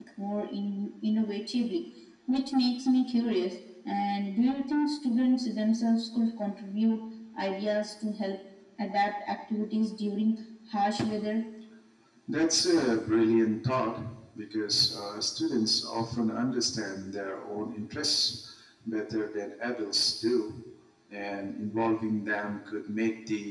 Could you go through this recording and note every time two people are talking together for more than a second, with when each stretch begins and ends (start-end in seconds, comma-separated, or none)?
none